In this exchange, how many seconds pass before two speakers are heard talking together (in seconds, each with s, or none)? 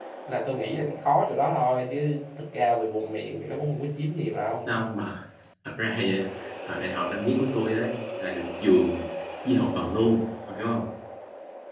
none